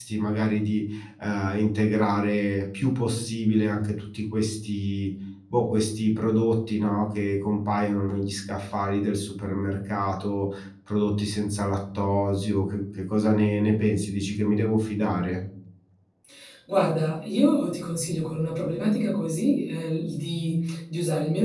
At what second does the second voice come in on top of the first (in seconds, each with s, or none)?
none